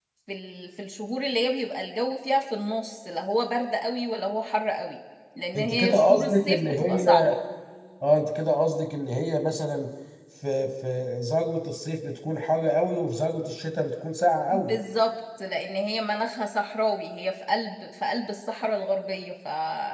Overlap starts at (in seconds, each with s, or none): 5.5 s